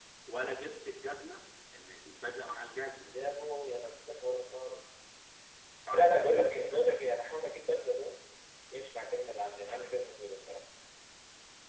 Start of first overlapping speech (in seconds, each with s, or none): 5.9 s